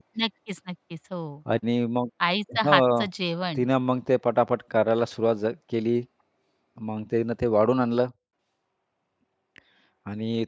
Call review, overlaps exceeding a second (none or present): none